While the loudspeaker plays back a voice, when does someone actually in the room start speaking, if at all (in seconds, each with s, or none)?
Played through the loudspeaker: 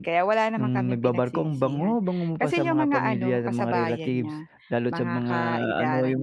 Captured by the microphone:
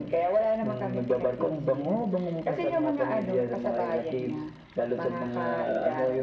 none